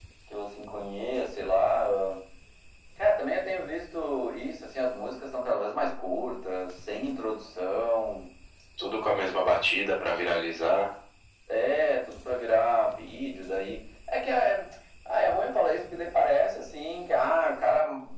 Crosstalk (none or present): none